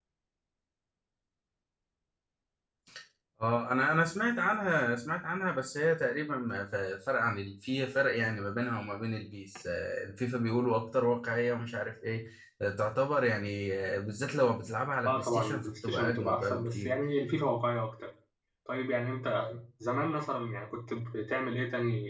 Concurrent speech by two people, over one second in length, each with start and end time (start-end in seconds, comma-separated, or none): 15.1-16.9